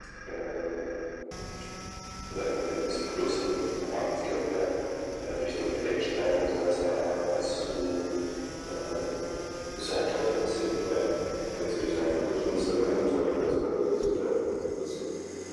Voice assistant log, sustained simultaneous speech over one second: present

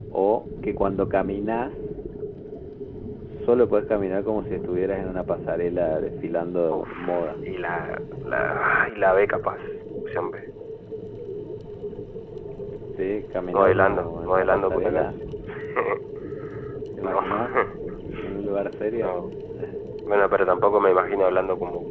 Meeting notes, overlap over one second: present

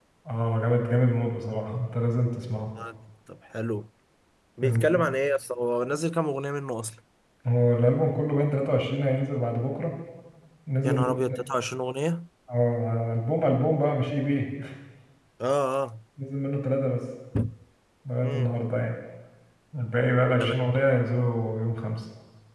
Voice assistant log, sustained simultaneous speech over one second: none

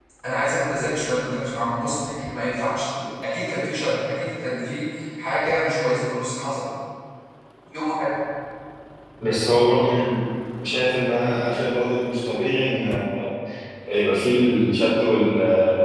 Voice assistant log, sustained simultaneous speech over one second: none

